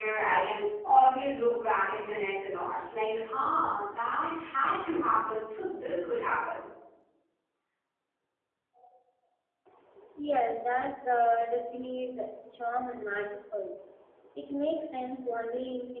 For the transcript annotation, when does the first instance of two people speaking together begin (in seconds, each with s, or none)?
none